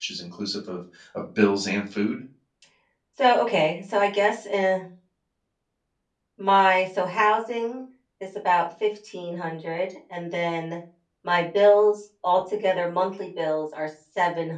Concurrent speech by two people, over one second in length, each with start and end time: none

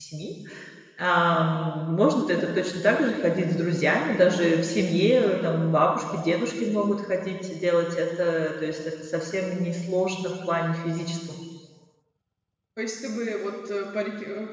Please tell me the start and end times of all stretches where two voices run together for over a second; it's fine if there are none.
none

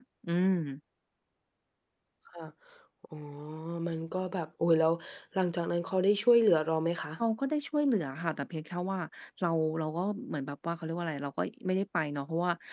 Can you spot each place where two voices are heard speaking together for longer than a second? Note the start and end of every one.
none

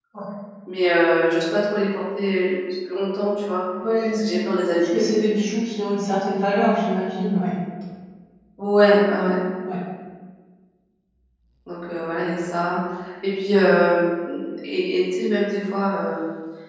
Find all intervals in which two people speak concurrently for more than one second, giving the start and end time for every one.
none

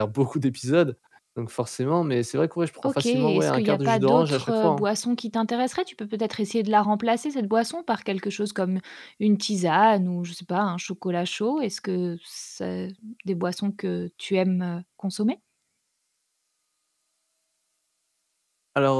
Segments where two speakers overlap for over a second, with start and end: 2.8-4.8

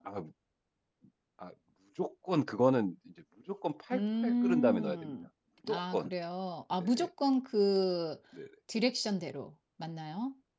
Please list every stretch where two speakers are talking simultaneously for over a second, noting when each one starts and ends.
3.9-5.2

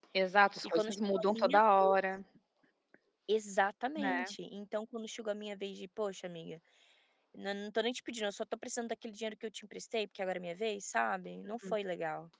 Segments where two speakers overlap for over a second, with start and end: 0.6-2.0

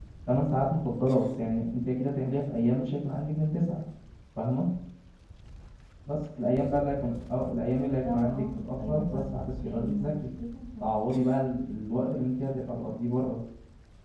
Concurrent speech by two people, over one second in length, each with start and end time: 8.1-10.1

